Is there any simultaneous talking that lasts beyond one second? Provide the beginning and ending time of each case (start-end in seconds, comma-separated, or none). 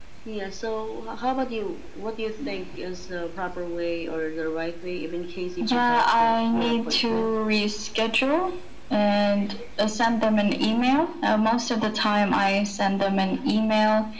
5.6-7.3